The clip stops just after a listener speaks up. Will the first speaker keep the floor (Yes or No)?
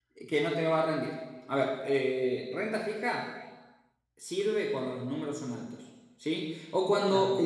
Yes